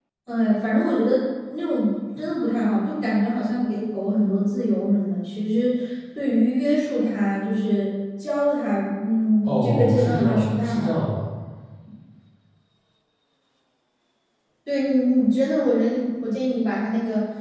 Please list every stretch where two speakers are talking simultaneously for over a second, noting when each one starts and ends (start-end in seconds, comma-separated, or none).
9.4-11.1